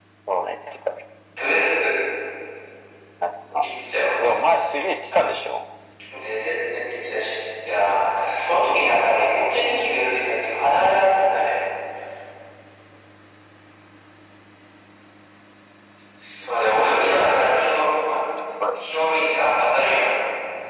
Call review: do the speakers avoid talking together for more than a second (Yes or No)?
No